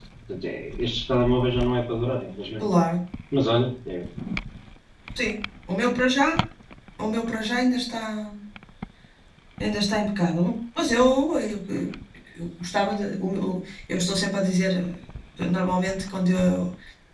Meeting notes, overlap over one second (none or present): none